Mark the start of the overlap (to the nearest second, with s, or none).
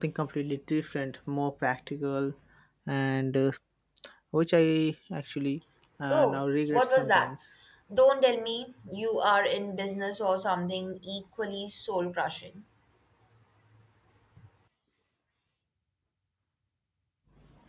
6 s